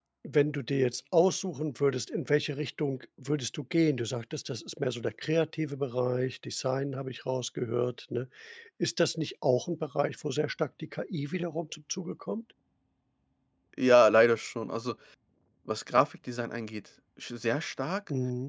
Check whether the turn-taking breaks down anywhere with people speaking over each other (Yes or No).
No